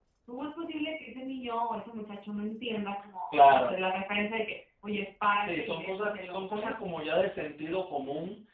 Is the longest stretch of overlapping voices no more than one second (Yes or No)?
No